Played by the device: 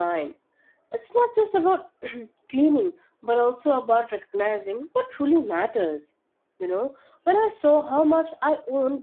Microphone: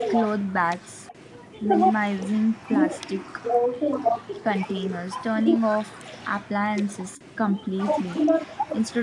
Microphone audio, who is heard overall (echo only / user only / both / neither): both